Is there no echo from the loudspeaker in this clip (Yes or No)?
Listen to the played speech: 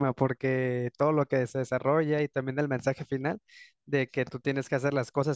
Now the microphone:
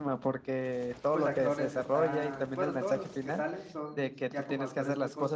No